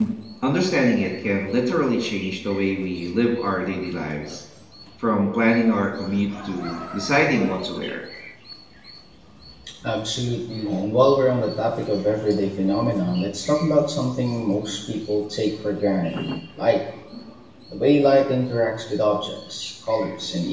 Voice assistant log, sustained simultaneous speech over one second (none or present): none